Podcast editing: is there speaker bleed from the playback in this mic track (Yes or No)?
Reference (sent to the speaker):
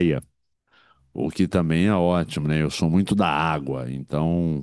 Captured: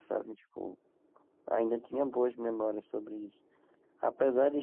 No